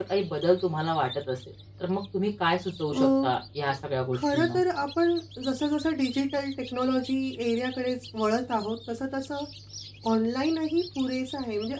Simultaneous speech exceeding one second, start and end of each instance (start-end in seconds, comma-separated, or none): none